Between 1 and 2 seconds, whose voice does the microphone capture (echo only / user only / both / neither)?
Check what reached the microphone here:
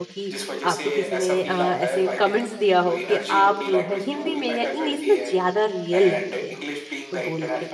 both